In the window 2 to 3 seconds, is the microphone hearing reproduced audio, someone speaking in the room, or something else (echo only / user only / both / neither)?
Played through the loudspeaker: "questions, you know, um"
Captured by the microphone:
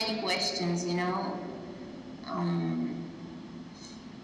echo only